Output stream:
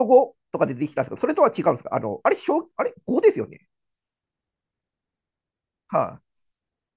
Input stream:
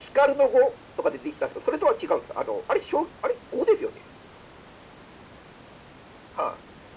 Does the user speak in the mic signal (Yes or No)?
No